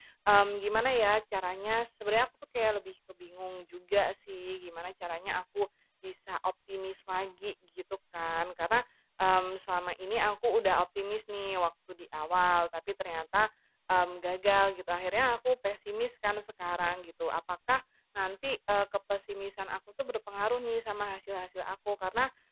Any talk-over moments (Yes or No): No